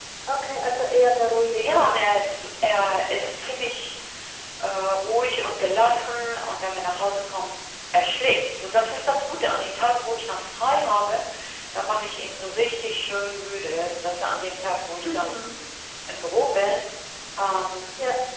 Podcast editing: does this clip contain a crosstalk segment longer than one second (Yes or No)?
No